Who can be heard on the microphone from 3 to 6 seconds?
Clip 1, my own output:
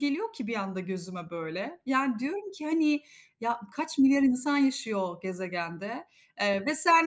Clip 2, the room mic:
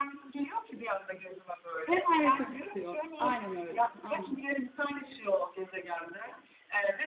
both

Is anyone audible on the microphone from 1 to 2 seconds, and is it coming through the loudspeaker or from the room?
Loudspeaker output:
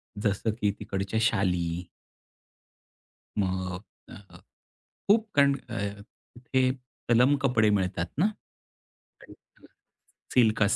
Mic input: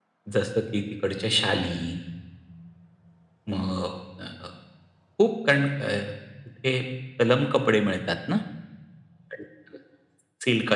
echo only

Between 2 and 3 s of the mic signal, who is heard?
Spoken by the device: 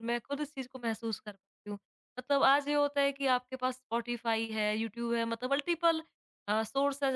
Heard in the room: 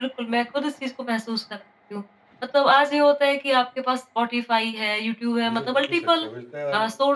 echo only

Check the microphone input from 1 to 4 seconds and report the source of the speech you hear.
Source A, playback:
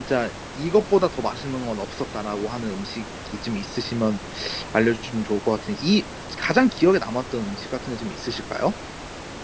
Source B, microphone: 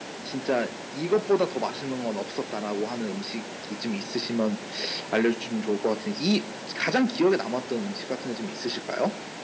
echo only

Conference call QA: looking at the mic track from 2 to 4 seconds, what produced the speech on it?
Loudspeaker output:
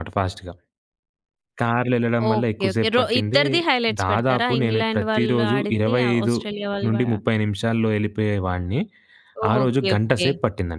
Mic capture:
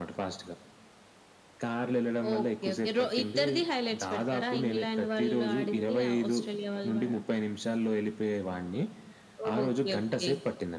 echo only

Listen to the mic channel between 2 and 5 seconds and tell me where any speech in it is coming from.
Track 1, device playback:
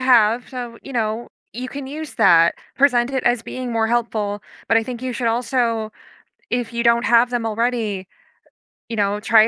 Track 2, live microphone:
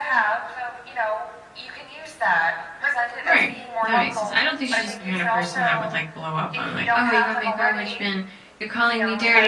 both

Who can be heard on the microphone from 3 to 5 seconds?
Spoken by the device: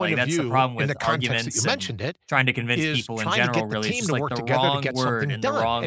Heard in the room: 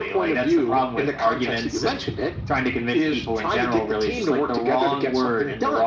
echo only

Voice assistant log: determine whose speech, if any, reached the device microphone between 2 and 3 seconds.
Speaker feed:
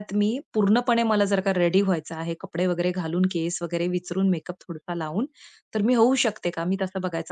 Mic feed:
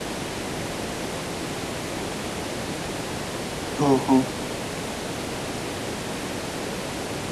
neither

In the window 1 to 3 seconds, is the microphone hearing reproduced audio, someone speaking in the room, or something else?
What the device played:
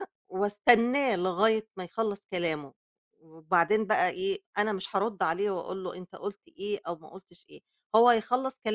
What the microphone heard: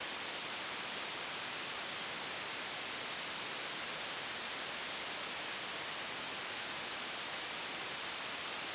neither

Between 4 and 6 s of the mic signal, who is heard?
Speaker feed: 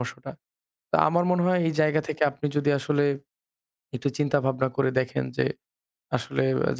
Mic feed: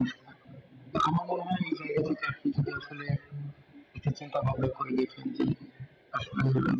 echo only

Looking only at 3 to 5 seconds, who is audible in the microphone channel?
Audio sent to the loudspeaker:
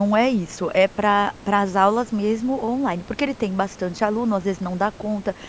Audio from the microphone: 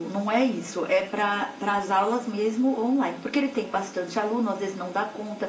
echo only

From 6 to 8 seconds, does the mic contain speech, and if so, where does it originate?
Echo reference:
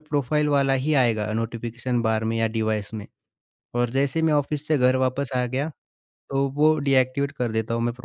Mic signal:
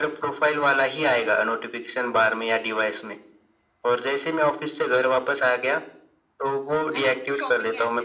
both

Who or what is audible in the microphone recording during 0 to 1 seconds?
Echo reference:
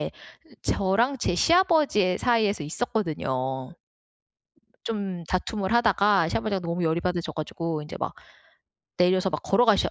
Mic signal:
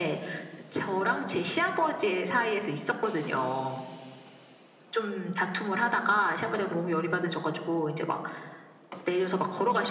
echo only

